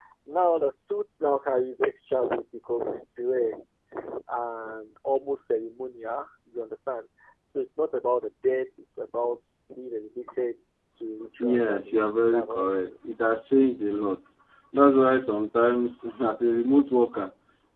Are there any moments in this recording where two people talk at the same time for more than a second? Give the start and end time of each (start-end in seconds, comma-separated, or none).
11.4-12.9